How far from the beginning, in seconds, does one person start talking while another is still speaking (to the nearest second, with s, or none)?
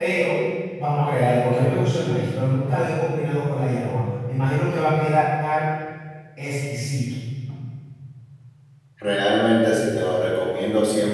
none